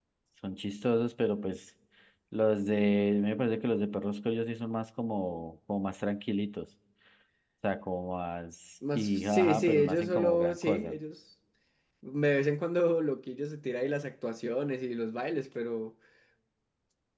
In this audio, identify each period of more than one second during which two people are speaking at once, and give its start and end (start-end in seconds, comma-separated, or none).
8.9-10.9